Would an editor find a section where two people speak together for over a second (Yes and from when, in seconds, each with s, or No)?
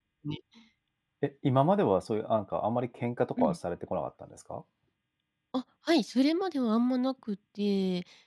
No